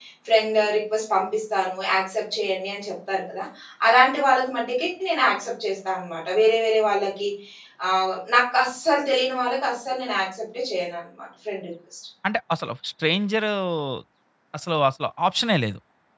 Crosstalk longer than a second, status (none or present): none